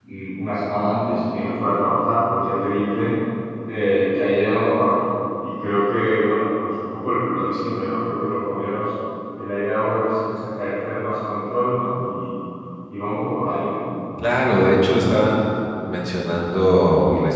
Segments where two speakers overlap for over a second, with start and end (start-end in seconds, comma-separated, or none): none